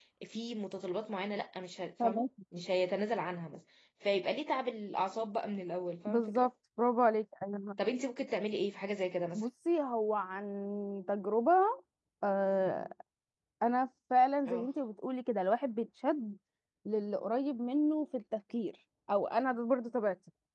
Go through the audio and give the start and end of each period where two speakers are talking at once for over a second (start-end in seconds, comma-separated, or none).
none